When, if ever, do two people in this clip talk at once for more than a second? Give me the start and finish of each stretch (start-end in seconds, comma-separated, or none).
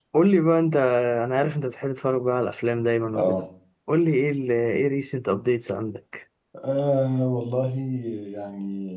none